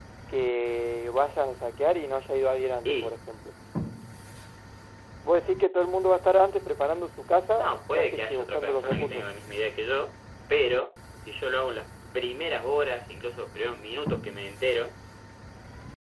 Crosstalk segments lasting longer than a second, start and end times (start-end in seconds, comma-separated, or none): 7.5-9.2